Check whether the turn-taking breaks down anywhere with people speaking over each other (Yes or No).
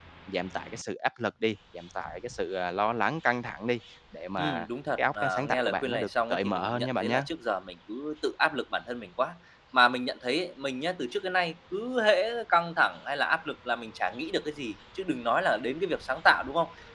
Yes